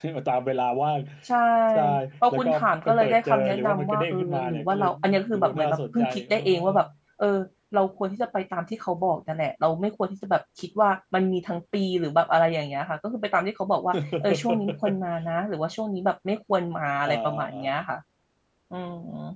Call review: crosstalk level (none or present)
present